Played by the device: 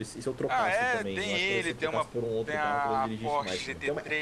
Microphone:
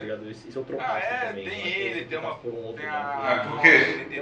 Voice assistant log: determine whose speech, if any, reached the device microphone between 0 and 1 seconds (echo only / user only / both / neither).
echo only